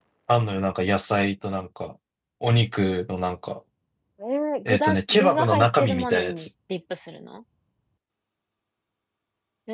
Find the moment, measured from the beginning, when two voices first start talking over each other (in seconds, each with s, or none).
4.7 s